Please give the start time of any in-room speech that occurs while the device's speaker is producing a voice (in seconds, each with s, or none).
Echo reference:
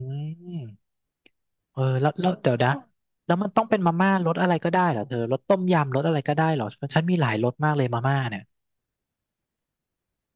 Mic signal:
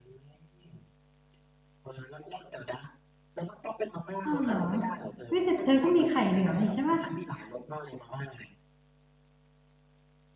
4.2 s